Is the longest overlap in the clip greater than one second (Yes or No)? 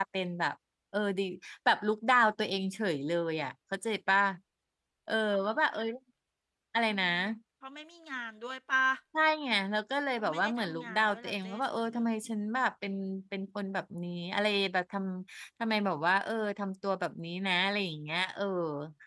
Yes